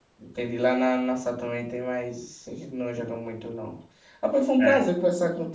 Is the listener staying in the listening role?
Yes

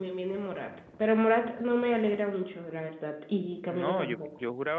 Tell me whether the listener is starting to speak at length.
Yes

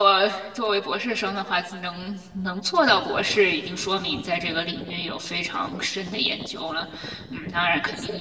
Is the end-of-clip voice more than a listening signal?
No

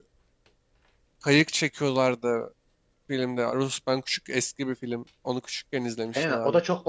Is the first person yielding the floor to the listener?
Yes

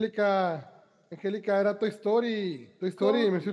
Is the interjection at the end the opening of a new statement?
No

